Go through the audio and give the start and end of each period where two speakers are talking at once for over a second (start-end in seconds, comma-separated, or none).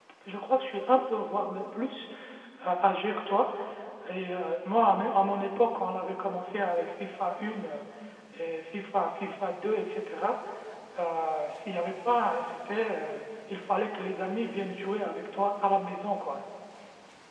none